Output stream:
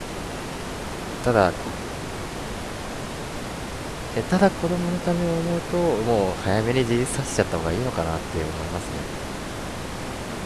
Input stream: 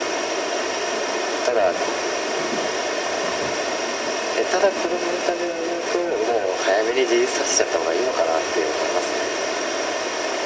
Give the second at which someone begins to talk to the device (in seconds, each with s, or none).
none